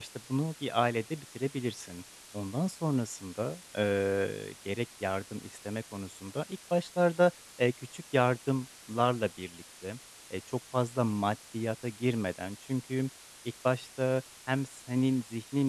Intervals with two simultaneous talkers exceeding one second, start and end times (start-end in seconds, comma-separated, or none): none